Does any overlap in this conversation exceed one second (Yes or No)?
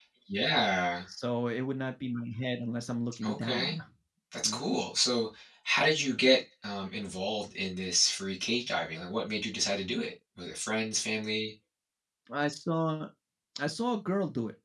No